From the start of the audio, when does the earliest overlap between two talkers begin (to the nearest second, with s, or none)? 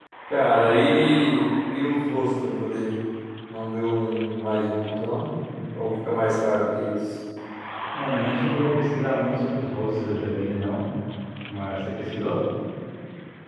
none